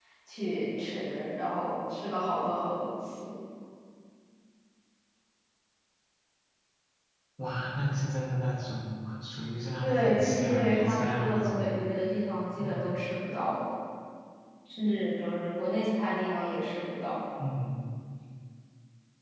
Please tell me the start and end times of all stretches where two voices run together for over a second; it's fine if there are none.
9.8-11.8

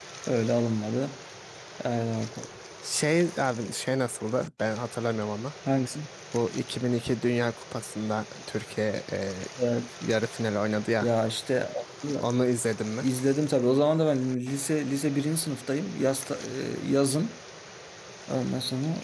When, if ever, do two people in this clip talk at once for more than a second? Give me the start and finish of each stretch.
none

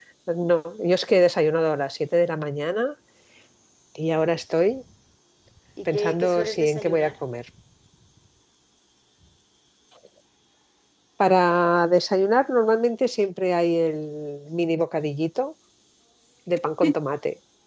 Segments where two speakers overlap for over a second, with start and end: 5.9-7.1

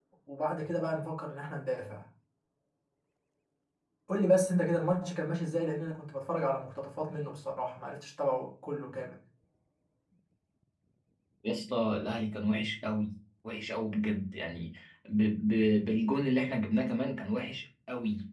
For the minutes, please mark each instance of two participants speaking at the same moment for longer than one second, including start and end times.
none

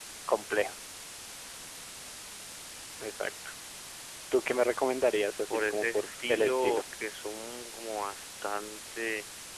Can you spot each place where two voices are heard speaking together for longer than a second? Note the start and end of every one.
5.5-6.8

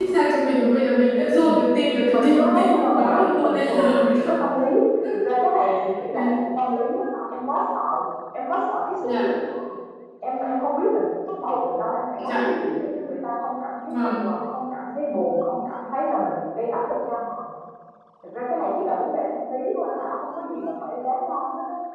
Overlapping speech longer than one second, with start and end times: 2.1-4.4

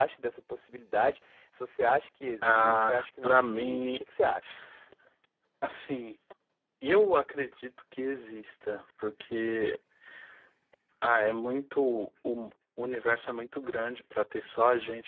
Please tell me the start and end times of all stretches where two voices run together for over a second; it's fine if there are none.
2.4-4.0

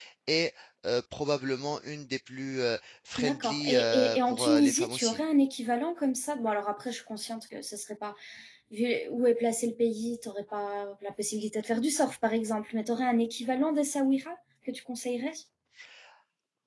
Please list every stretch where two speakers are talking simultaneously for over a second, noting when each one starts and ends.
3.2-5.2

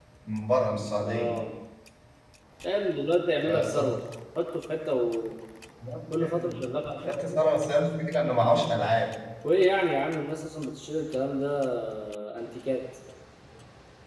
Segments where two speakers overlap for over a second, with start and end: none

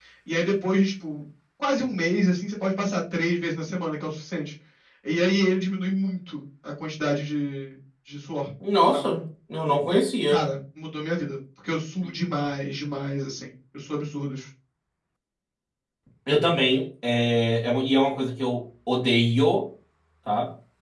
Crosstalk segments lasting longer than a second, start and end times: none

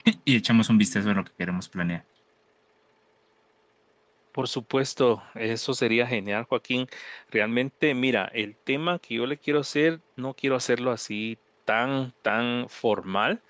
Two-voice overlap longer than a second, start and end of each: none

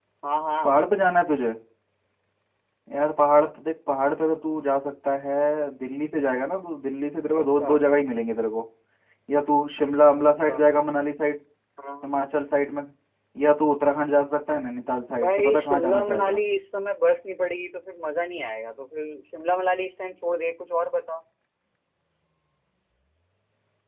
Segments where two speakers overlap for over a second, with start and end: 15.2-16.4

